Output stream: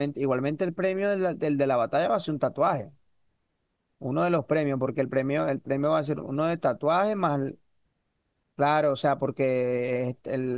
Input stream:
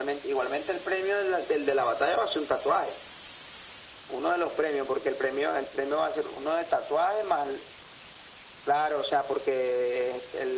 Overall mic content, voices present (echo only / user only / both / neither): echo only